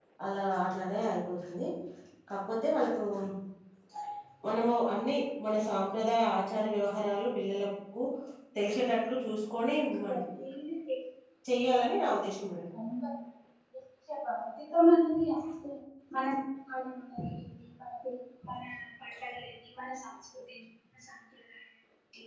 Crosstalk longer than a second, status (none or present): none